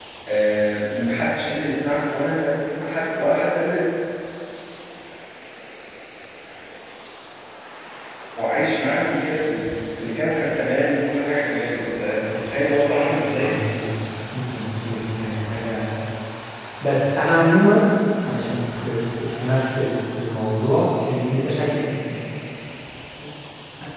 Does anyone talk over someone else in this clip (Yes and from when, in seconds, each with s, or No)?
Yes, from 11.4 s